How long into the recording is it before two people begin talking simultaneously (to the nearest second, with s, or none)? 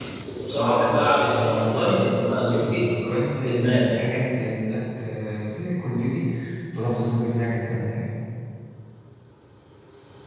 1 s